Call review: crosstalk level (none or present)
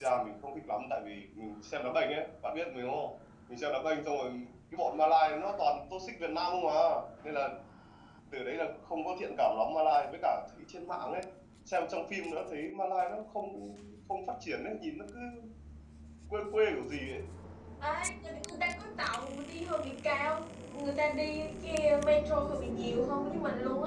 none